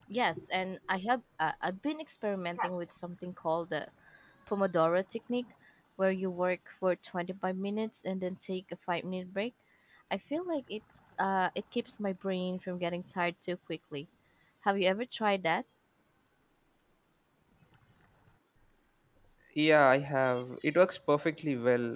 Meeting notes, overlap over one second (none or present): none